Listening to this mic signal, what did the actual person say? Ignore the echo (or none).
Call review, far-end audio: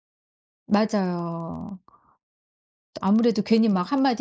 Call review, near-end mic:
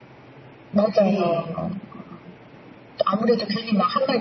네.